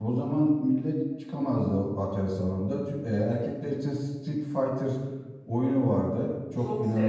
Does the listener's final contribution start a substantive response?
Yes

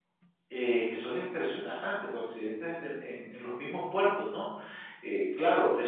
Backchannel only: Yes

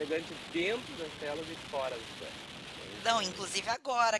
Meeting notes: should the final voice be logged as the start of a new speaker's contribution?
Yes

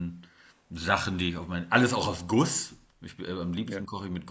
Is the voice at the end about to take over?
No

